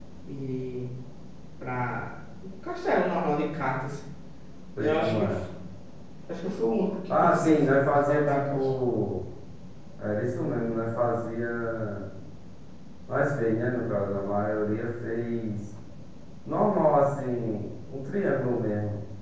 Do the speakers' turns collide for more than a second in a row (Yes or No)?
Yes